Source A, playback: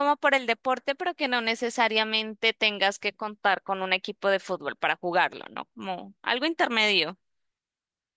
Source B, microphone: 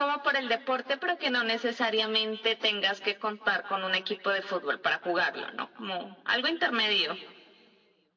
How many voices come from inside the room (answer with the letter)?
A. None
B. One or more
A